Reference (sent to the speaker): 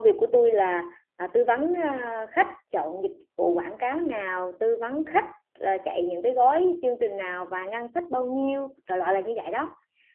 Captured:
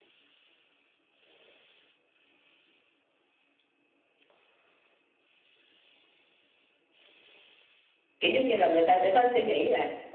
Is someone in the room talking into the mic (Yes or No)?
Yes